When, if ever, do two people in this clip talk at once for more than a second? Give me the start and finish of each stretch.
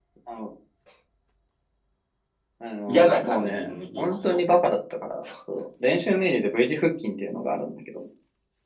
2.9-4.4

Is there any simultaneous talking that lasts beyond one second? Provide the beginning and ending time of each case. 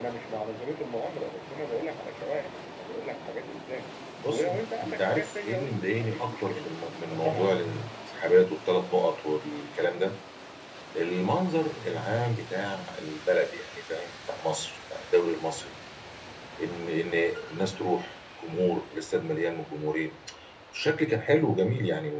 4.3-6.7

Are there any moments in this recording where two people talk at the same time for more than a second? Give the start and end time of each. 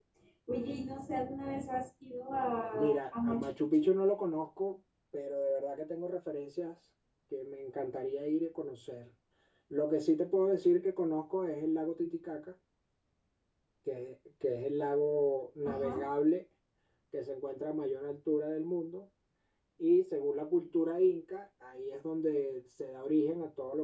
2.7-3.9

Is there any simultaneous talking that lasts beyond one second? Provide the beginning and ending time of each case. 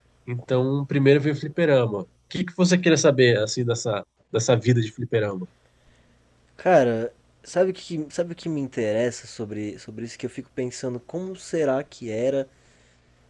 none

